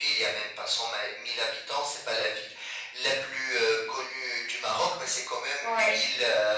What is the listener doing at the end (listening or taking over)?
listening